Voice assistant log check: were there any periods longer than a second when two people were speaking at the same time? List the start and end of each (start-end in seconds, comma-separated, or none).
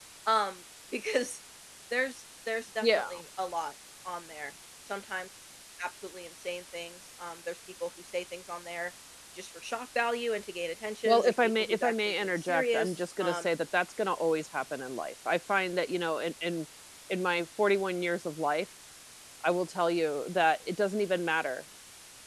11.1-13.5